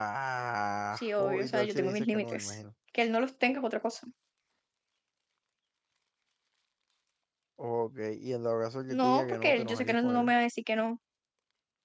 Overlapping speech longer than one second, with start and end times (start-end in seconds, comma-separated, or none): 0.9-2.6, 8.9-10.3